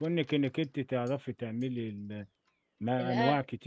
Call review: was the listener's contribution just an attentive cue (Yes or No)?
Yes